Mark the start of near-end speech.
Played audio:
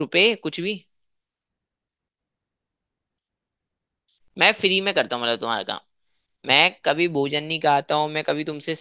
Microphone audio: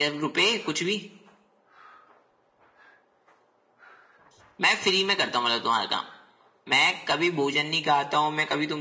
none

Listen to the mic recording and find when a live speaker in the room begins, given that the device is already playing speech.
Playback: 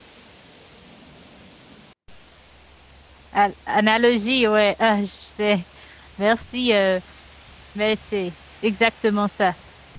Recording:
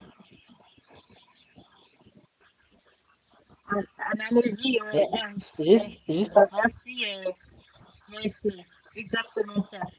4.9 s

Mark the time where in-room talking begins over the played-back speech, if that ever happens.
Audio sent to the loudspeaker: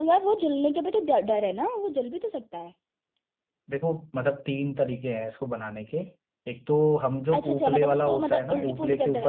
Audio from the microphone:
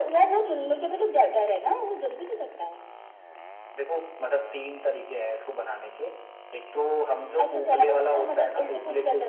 none

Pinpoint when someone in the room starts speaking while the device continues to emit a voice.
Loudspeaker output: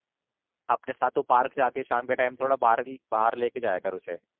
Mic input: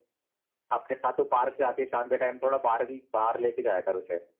none

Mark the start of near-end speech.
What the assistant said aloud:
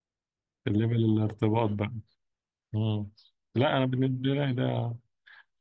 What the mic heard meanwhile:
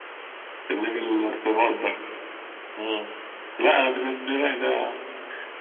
none

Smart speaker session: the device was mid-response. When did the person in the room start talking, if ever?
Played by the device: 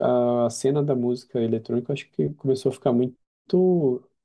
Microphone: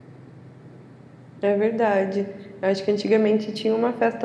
1.4 s

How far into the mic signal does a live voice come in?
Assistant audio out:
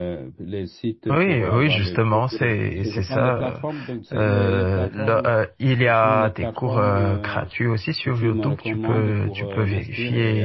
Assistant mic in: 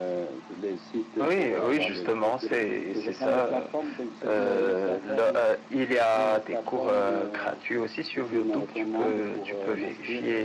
none

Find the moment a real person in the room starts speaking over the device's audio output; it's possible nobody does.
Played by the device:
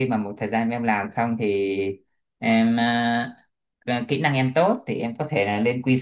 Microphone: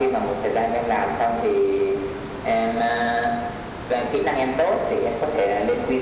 none

